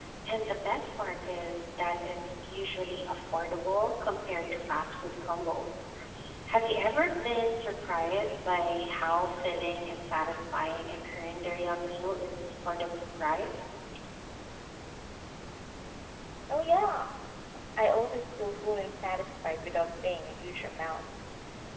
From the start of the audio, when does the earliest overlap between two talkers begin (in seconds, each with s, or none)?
none